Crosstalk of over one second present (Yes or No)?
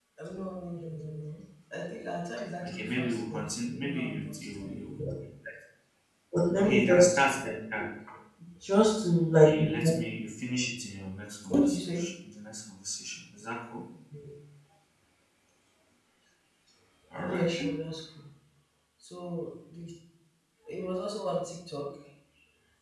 Yes